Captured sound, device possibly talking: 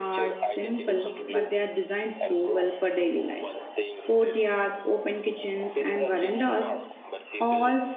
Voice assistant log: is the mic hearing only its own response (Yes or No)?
No